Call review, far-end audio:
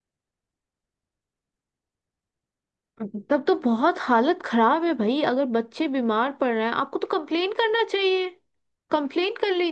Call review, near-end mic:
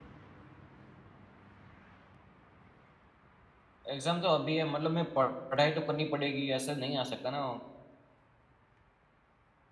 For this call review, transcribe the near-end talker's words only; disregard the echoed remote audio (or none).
एग्ज़ाम तो अभी है मतलब मैं पढ़- पढ़ाई तो करनी पड़ेगी ऐसा नहीं आ सकता ना